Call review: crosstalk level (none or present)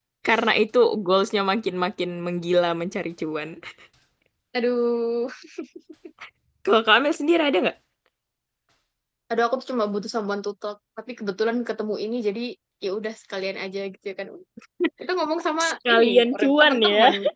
present